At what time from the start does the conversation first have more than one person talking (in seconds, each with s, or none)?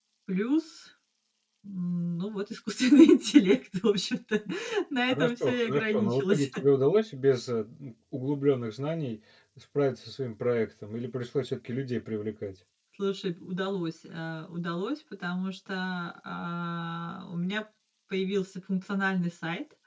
5.1 s